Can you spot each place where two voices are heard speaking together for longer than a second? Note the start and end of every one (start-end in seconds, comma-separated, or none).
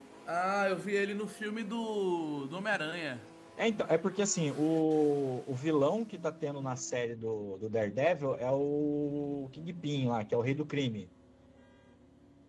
none